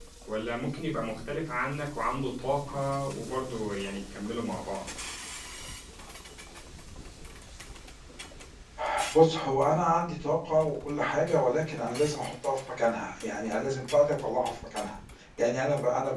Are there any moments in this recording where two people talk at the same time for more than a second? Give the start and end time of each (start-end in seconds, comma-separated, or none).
none